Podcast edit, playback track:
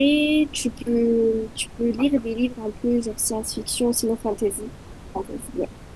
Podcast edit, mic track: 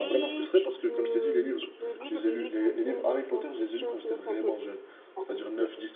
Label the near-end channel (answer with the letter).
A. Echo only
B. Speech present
B